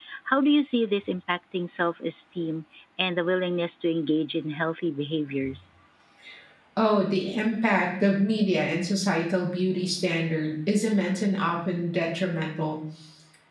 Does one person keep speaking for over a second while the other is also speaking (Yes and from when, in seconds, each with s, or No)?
No